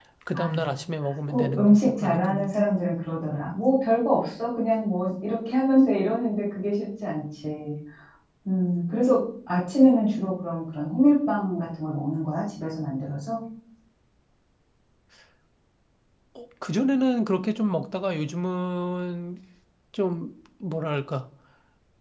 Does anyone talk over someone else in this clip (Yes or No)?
Yes